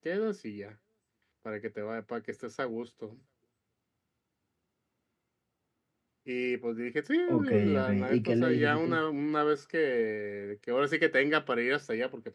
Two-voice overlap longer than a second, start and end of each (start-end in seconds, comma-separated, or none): 7.3-9.0